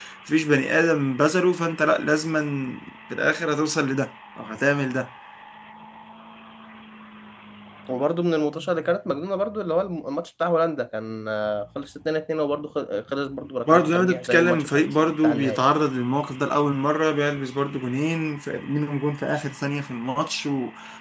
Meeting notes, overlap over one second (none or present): present